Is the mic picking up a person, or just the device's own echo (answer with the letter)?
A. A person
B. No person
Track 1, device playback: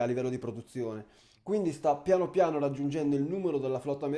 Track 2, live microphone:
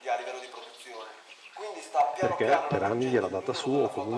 A